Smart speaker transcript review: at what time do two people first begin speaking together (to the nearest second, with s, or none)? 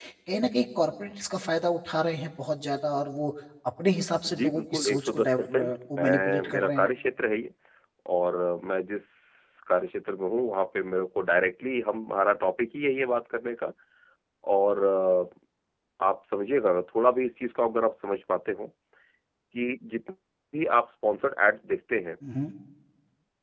4 s